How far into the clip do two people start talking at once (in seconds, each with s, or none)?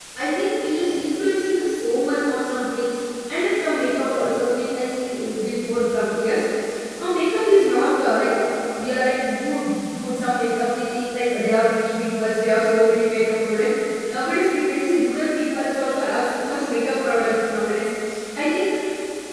none